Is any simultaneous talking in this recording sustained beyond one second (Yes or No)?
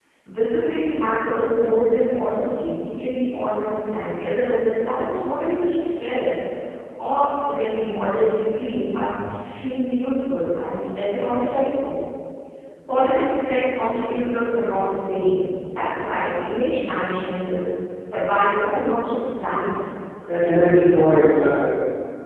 No